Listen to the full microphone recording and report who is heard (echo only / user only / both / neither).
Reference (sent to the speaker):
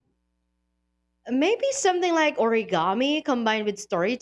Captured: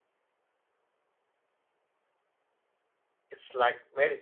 user only